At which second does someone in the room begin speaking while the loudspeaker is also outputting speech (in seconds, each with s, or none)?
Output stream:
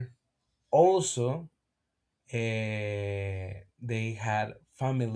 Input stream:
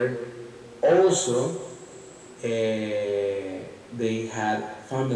none